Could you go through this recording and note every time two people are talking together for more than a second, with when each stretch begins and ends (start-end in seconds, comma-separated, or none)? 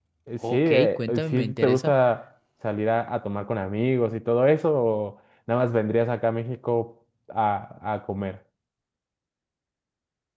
0.5-1.9